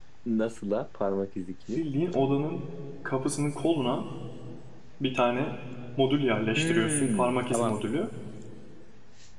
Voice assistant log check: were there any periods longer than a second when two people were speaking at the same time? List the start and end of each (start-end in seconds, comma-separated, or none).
6.6-7.8